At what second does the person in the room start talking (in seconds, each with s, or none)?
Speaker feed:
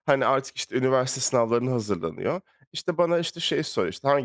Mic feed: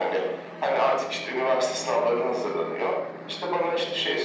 none